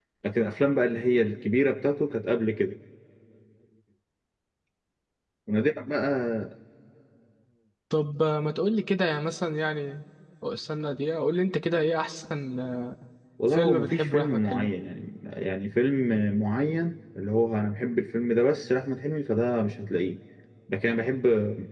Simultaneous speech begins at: 13.5 s

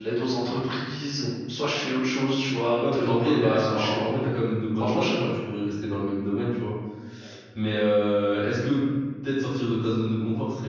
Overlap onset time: 2.8 s

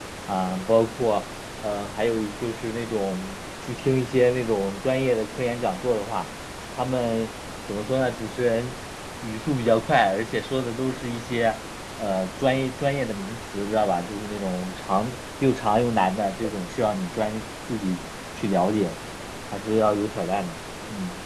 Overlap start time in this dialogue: none

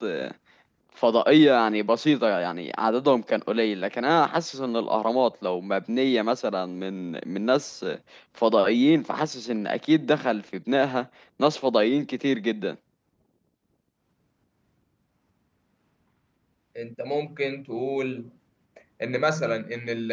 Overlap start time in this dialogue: none

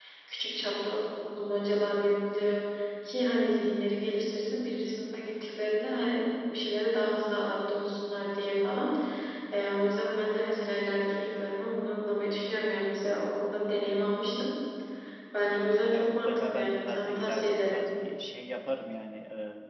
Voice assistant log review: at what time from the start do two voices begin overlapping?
15.9 s

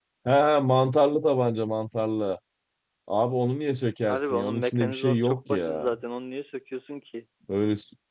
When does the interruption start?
4.1 s

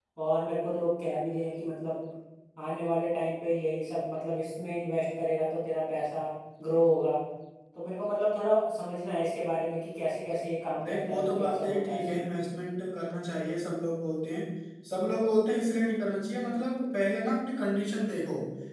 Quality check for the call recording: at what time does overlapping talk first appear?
10.8 s

